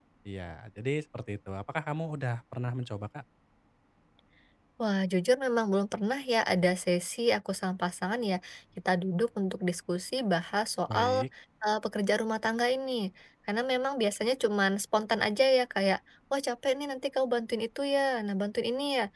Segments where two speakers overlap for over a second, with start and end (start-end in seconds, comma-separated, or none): none